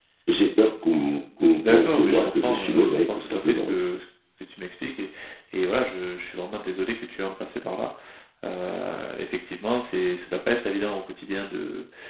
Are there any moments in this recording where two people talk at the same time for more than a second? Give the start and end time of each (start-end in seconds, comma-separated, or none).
1.5-3.7